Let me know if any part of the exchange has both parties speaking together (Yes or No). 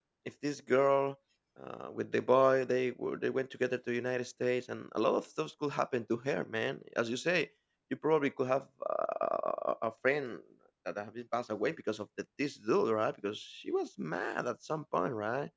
No